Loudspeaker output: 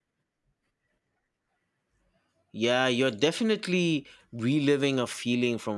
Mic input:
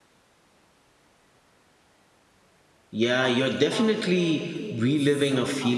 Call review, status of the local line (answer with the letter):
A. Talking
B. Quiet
A